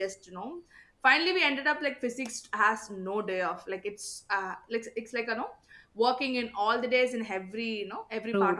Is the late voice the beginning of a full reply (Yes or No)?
Yes